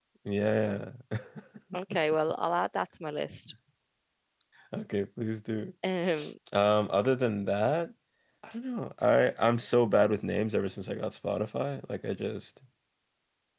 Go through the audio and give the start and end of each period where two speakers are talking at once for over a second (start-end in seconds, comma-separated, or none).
none